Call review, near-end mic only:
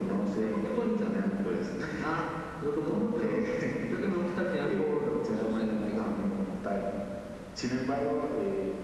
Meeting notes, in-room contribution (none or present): none